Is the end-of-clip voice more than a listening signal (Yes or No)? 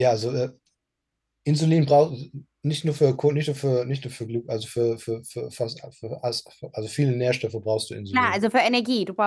Yes